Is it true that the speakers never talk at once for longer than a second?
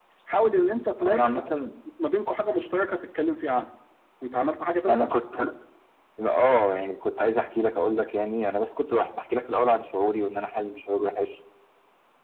Yes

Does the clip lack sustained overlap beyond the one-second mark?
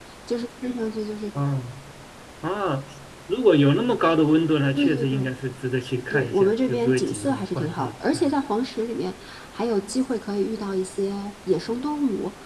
No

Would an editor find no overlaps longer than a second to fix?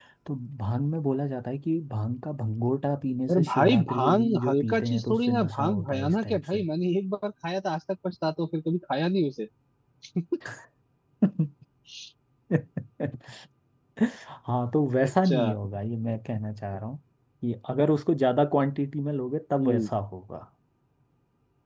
No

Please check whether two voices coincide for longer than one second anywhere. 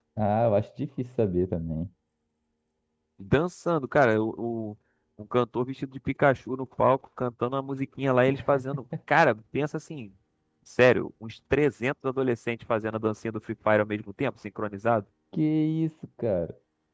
No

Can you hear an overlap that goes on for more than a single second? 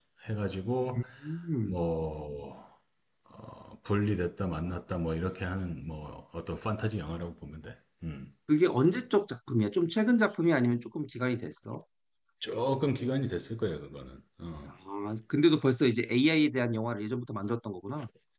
No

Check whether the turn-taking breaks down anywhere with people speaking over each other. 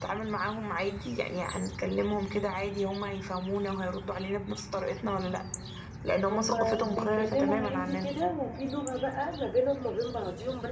Yes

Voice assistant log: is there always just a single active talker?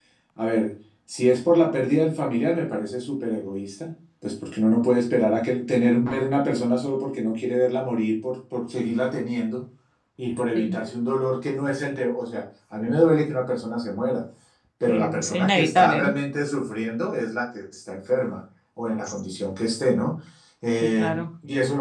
No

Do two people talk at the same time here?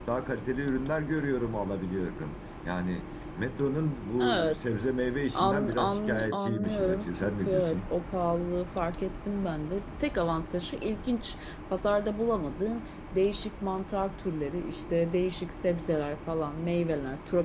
Yes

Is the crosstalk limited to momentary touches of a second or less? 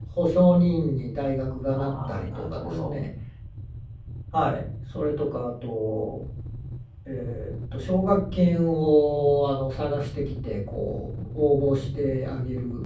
No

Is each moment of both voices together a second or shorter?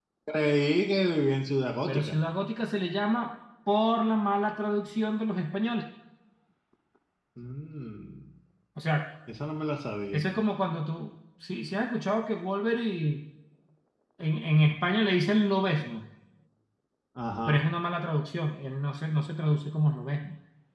Yes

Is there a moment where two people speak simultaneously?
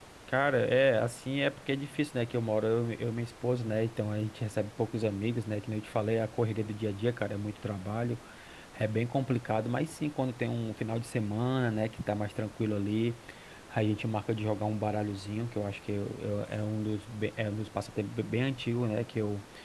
No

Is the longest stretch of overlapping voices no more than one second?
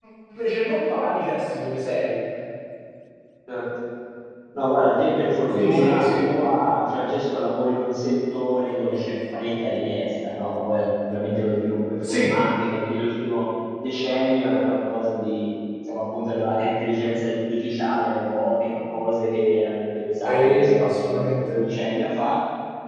No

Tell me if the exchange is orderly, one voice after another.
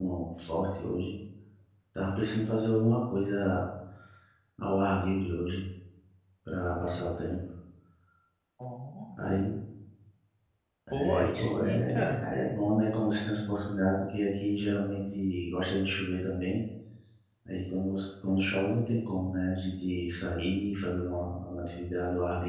No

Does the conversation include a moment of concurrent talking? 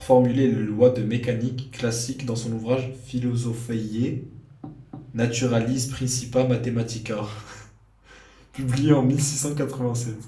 No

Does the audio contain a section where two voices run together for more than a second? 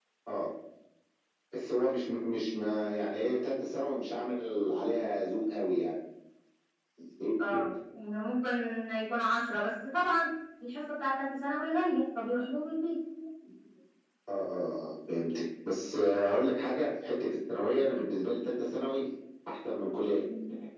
No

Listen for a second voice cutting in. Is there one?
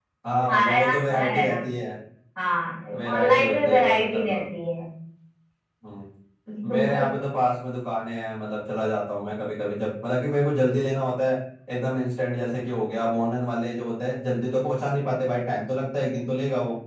Yes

